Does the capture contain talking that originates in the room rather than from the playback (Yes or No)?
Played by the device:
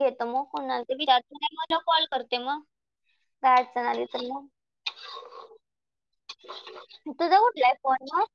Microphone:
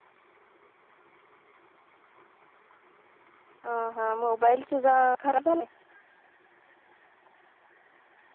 Yes